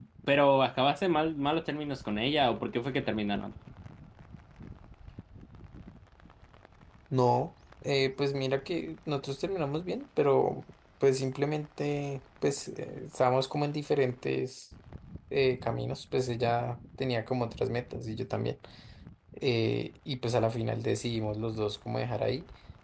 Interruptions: none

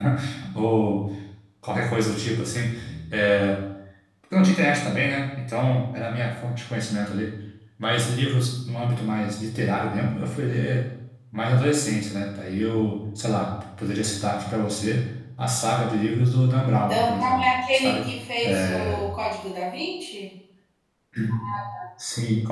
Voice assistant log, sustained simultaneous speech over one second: present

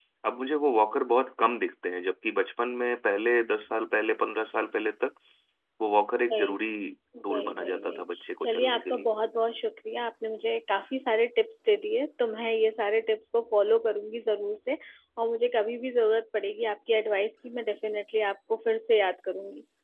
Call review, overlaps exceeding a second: present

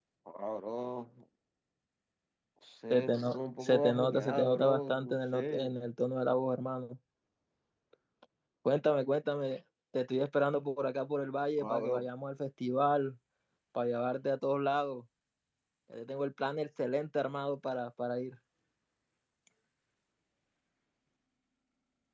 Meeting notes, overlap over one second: present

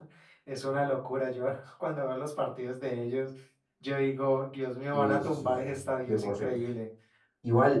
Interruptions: present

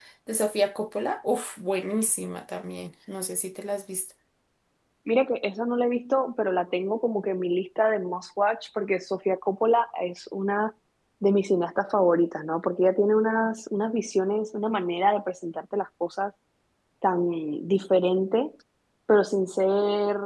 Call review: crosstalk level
none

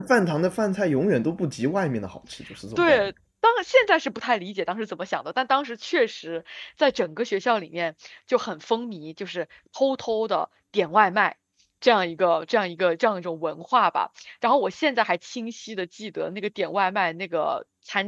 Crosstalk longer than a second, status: none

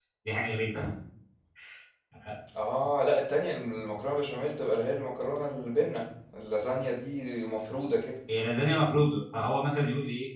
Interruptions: none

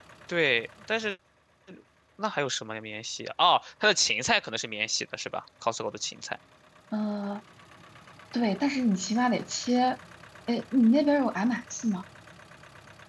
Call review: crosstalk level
none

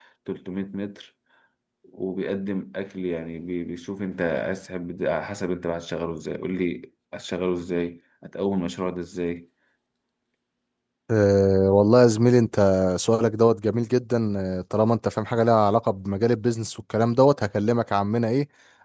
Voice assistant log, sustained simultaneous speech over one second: none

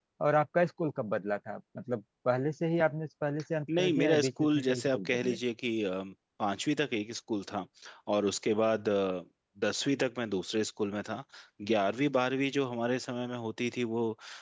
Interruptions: present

